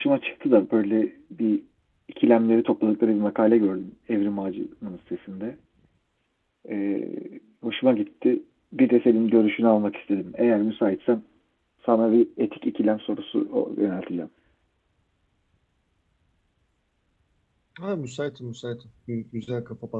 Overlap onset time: none

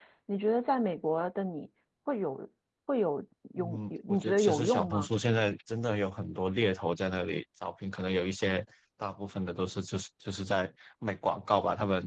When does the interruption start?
3.5 s

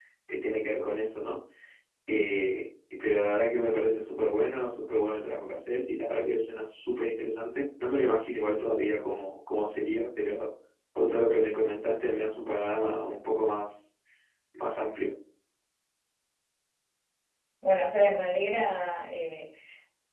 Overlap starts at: none

